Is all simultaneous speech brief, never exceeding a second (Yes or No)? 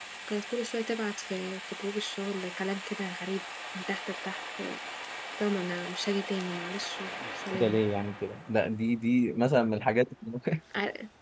Yes